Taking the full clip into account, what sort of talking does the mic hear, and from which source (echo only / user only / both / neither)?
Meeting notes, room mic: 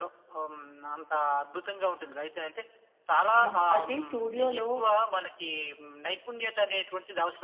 both